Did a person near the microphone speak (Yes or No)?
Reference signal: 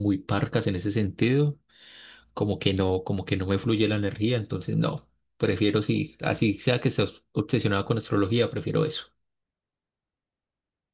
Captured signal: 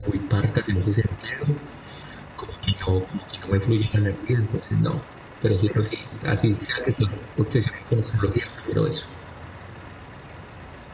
No